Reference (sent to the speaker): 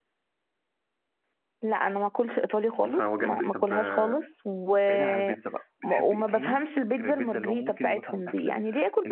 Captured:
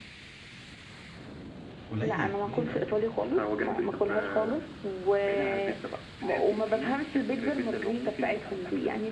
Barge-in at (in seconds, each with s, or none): 1.9 s